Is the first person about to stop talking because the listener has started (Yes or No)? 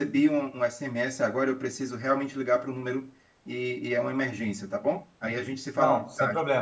Yes